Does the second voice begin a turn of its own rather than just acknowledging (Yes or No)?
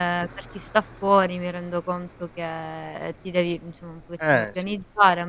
No